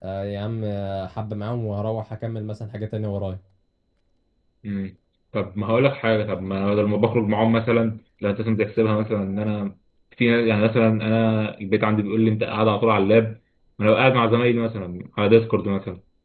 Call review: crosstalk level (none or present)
none